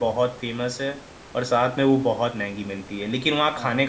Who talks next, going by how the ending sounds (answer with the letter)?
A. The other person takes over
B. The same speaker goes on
B